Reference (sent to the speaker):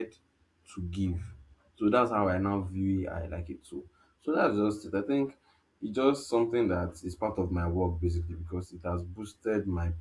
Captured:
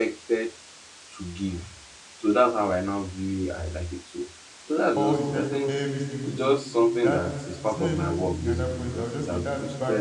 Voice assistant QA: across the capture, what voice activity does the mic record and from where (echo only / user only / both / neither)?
both